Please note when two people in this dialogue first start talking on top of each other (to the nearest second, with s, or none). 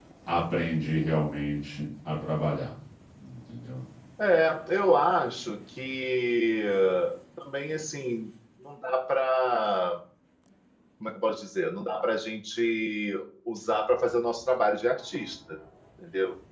none